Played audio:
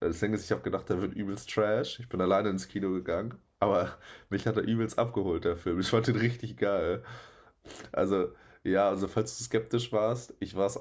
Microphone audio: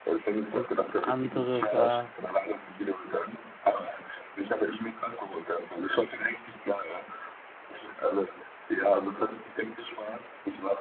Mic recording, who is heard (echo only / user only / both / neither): both